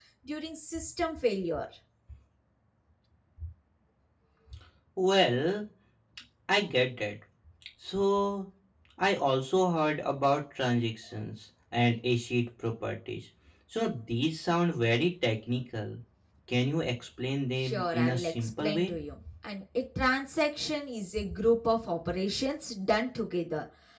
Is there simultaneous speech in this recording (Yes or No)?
Yes